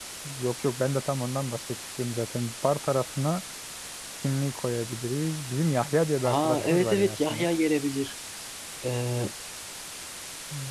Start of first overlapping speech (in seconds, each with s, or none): 6.2 s